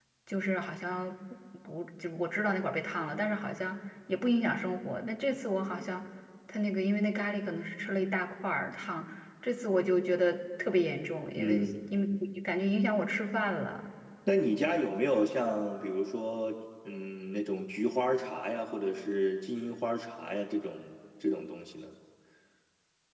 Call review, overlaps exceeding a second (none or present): none